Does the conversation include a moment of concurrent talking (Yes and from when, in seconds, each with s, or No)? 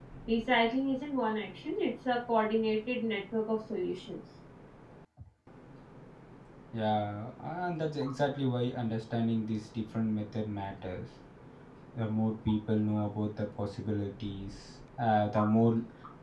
No